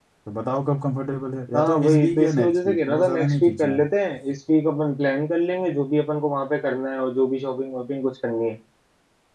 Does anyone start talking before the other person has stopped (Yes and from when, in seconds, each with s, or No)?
Yes, from 1.5 s